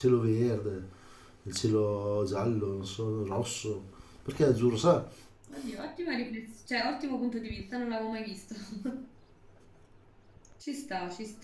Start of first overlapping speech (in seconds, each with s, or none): none